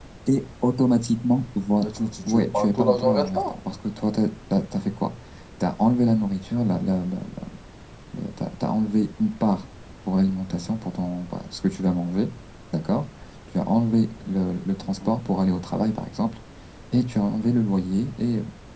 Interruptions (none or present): present